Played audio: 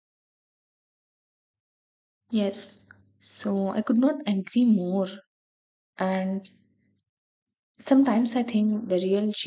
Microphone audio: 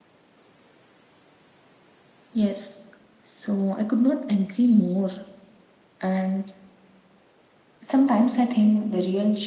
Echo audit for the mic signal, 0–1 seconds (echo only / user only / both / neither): neither